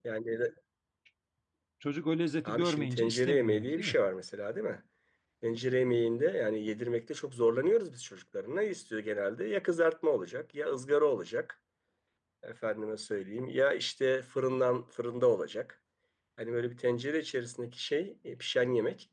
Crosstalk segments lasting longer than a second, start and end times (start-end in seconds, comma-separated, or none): 2.5-4.0